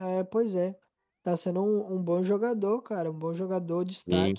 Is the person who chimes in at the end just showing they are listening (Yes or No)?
No